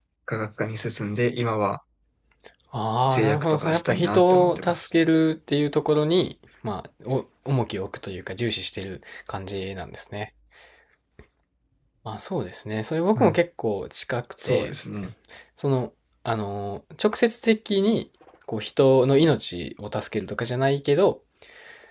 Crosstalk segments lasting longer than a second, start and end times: 3.1-4.9

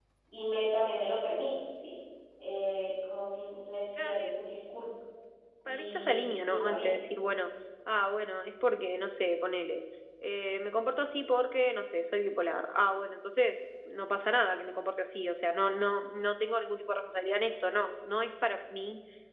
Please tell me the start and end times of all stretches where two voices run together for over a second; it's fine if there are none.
5.7-7.0

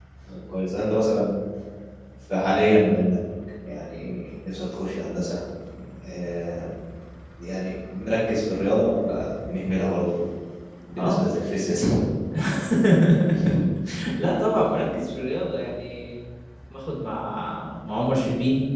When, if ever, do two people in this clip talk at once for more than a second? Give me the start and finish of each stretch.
none

